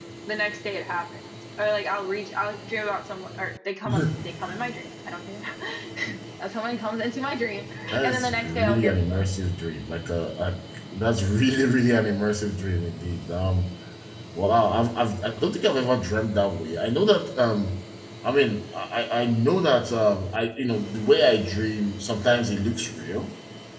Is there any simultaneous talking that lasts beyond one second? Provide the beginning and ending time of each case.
8.0-9.3

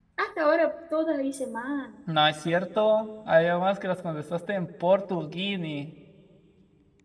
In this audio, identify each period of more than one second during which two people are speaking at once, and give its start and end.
none

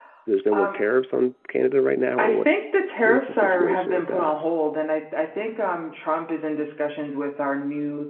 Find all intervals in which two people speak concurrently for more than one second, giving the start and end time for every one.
3.0-4.3

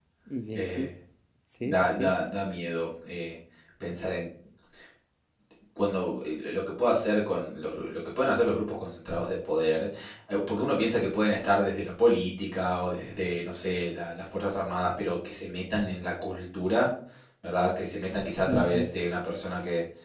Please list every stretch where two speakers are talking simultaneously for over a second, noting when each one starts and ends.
none

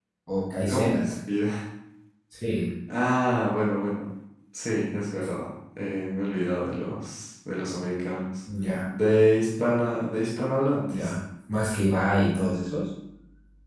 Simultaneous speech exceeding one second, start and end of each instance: none

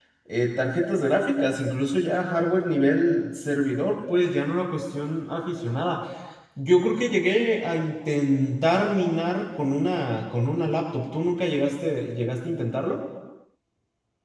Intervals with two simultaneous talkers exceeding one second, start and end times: none

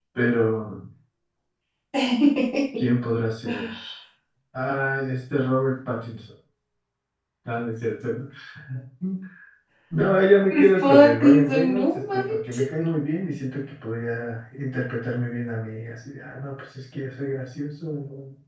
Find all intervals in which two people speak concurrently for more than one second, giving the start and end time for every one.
10.5-12.2

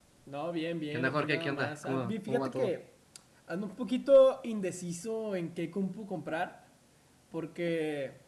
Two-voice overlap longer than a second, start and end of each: 0.9-2.7

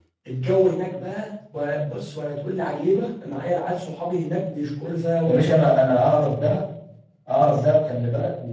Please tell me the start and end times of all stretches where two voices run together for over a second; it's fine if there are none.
none

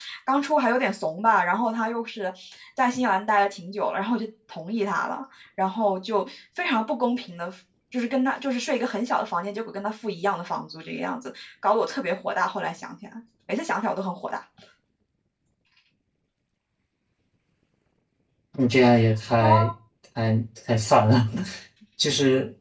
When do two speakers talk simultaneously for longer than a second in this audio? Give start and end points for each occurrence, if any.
none

